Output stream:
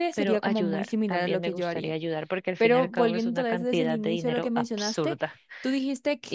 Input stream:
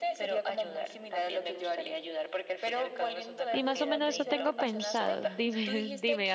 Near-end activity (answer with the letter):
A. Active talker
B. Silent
A